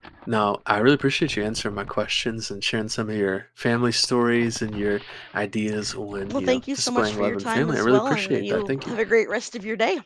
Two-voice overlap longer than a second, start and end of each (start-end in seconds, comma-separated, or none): 6.3-8.9